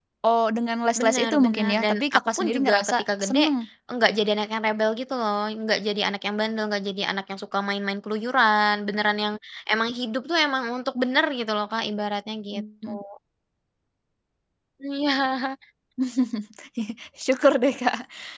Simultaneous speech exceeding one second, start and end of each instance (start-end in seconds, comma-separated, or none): 1.0-3.4